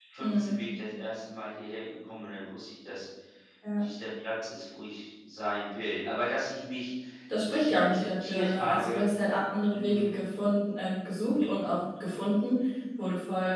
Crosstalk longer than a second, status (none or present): present